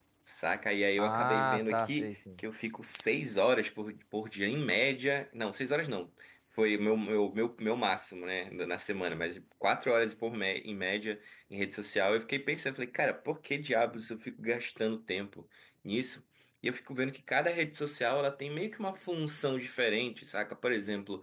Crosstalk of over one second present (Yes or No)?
Yes